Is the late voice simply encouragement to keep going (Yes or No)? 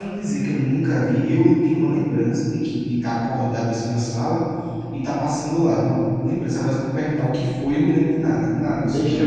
No